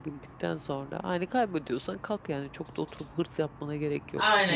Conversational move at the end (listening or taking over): taking over